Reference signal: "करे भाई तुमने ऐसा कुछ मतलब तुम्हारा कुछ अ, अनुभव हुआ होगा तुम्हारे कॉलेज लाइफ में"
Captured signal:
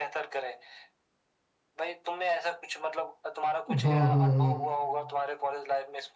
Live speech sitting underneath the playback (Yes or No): No